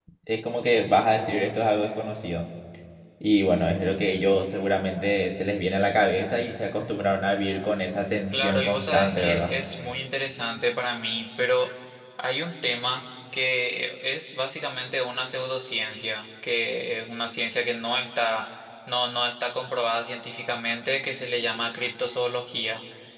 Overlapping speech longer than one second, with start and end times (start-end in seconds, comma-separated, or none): 8.3-9.5